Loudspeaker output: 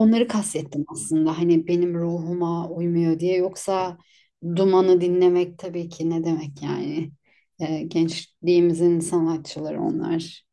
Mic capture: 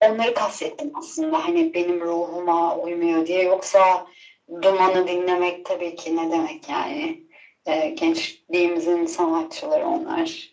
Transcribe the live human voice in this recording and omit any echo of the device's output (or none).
none